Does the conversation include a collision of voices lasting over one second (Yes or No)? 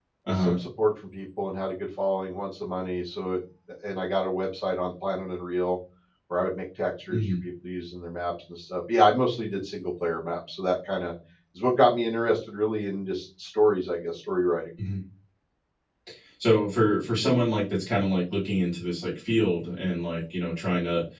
No